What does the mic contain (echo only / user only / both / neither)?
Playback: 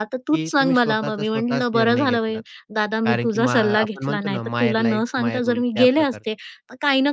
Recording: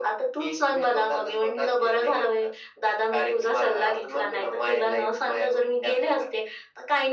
echo only